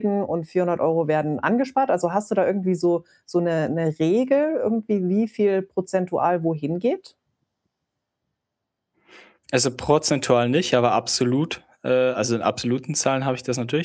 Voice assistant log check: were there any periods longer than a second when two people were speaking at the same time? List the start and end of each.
none

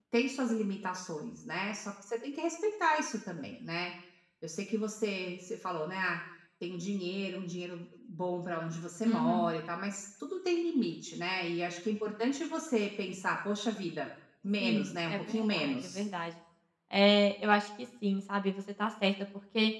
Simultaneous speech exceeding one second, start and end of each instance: 14.6-16.0

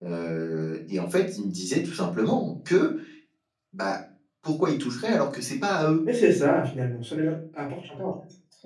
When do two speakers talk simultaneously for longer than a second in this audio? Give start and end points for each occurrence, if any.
none

